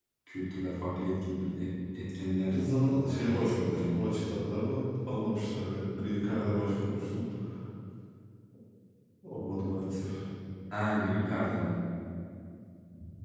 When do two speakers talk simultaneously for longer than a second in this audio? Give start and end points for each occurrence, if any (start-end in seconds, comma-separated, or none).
2.4-4.0